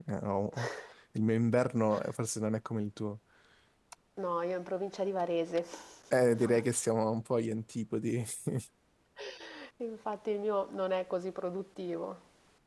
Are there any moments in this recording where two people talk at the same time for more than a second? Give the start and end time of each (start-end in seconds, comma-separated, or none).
none